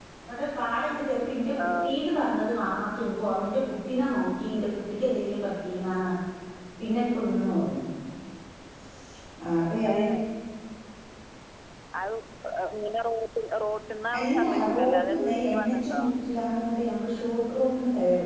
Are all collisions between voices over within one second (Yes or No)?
No